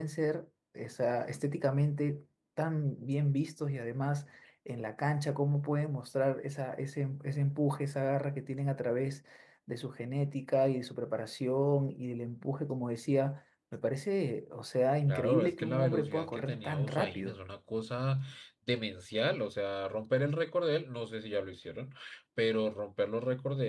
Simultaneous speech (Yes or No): Yes